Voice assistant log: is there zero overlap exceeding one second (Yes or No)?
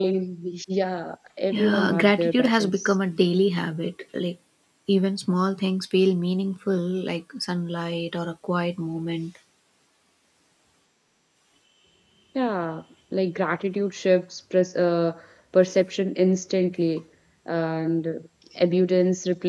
No